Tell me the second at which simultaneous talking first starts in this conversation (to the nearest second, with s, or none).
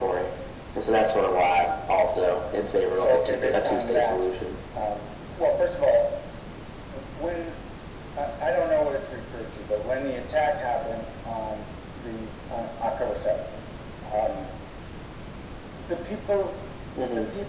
3 s